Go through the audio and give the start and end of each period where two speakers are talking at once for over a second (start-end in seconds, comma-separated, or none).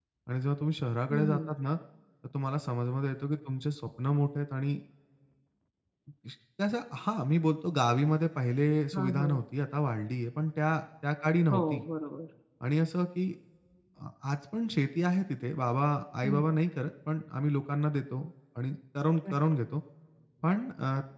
none